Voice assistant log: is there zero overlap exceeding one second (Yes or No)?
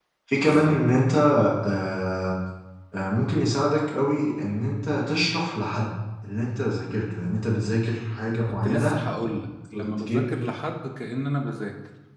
Yes